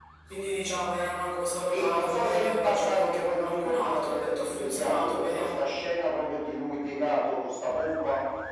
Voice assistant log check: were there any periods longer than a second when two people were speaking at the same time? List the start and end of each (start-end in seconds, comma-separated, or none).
1.7-5.5